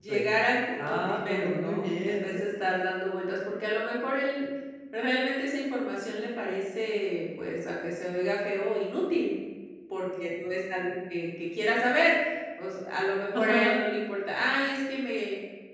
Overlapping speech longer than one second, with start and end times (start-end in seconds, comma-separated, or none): 0.8-2.4